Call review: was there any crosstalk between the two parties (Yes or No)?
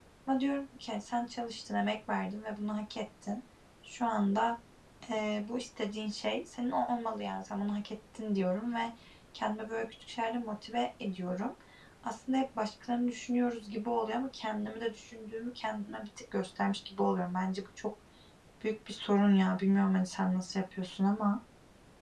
No